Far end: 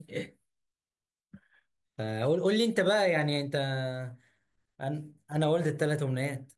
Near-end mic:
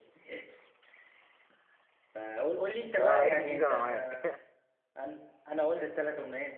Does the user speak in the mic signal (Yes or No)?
Yes